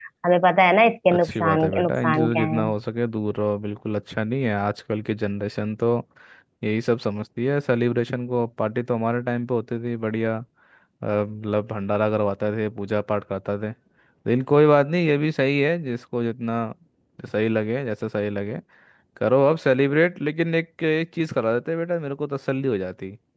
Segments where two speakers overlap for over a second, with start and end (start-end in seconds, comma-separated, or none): 1.1-2.6